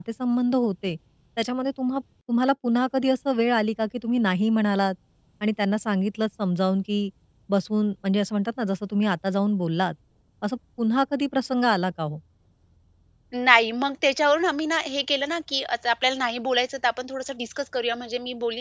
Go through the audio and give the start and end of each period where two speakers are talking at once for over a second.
none

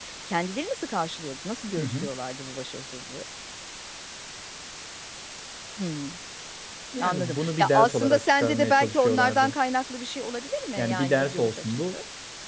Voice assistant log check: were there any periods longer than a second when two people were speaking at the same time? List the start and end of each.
7.0-9.6, 10.8-12.0

